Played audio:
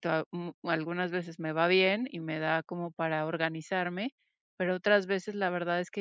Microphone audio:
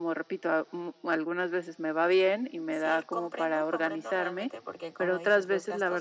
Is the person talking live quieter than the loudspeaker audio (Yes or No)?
Yes